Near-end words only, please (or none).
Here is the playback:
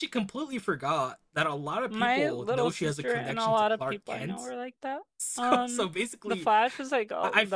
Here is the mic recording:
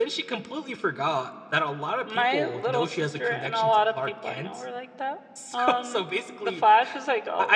none